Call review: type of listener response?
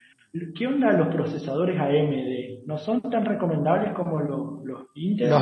taking over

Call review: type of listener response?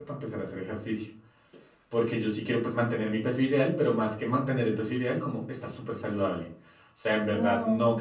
listening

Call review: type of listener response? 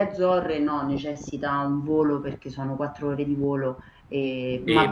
taking over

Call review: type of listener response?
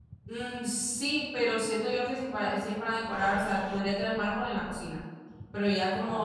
listening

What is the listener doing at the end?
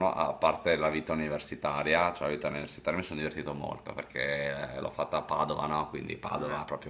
listening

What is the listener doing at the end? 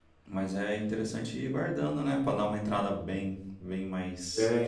taking over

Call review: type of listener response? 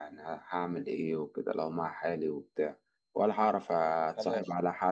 listening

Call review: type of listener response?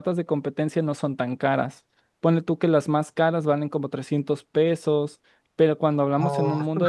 listening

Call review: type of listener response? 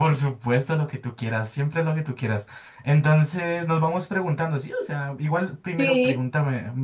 listening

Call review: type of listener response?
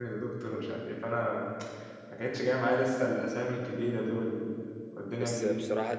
taking over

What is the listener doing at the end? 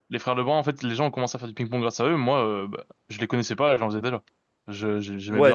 taking over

